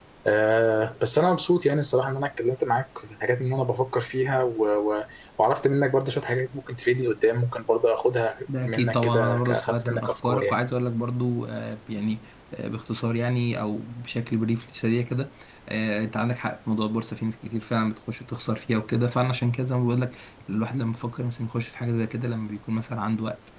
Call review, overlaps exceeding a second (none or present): present